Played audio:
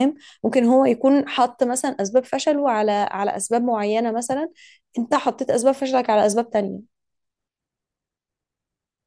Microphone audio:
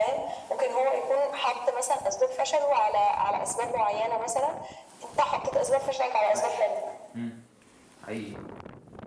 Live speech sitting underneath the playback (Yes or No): Yes